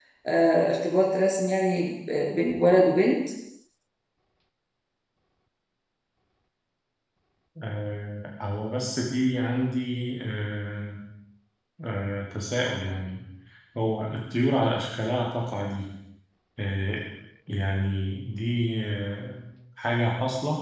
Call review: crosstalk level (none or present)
none